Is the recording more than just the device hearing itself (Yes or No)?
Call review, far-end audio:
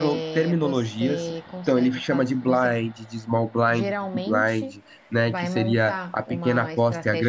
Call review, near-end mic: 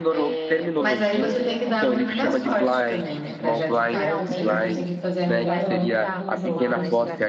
Yes